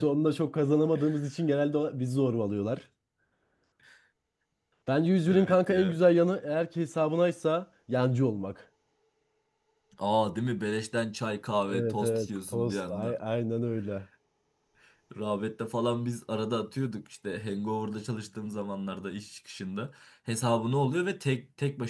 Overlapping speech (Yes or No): Yes